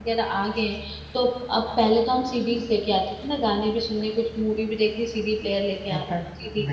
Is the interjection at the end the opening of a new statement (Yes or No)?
Yes